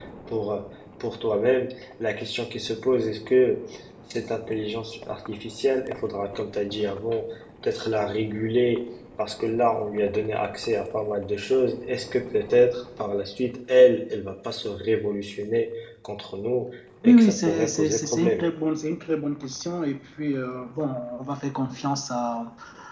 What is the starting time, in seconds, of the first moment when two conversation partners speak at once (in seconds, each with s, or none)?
17.0 s